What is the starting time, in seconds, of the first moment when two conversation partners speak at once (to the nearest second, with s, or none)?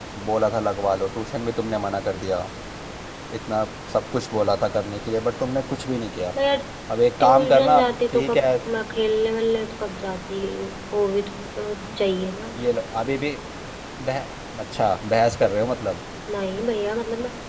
7 s